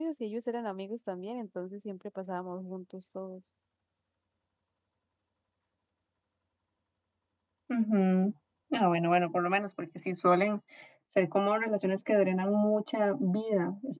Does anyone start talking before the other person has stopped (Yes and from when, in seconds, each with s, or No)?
No